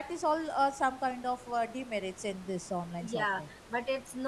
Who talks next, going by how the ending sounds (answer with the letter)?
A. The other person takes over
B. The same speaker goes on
A